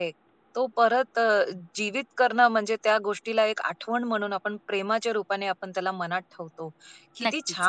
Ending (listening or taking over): listening